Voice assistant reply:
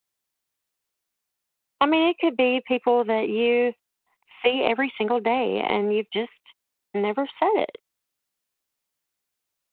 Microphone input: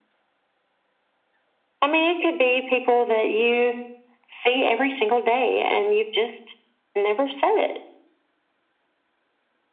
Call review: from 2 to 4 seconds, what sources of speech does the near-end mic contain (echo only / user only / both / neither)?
echo only